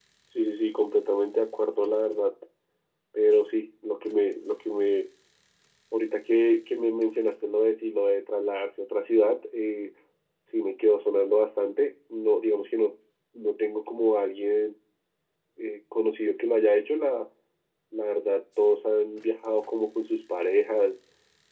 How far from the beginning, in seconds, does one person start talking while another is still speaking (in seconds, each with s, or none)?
none